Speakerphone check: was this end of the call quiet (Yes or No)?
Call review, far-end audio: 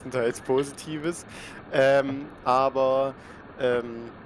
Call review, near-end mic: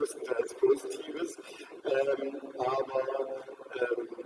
Yes